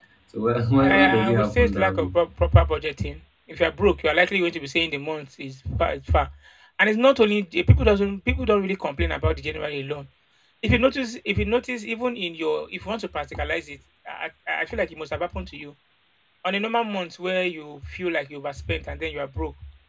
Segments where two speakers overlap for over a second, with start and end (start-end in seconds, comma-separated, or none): 0.8-2.1